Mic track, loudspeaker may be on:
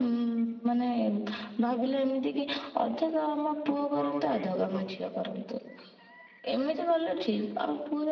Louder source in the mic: echo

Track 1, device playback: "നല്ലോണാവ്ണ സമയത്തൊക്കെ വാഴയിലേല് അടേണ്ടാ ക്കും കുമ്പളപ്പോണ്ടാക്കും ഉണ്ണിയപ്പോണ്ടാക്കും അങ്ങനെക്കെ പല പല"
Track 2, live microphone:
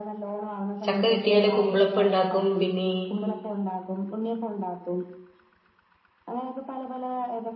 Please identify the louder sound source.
user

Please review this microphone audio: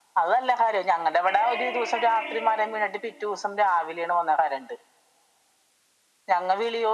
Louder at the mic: echo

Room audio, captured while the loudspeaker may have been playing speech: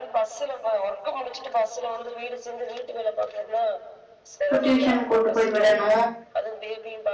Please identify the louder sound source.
user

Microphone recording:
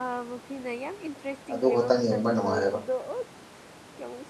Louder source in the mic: user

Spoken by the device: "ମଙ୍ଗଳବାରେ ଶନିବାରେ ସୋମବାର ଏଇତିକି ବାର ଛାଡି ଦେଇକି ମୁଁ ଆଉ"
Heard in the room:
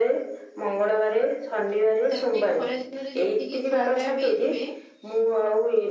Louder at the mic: echo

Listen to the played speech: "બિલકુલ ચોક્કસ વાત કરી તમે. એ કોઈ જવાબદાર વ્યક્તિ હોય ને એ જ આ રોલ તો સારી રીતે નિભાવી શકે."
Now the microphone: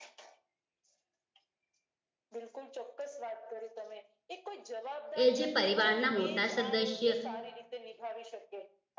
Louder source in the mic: user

